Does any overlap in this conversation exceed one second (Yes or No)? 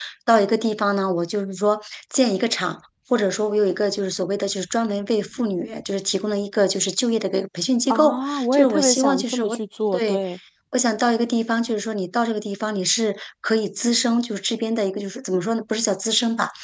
Yes